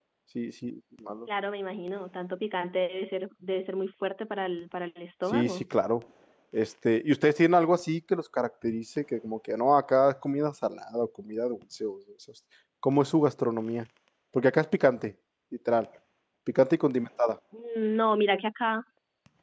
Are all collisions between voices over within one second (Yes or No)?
Yes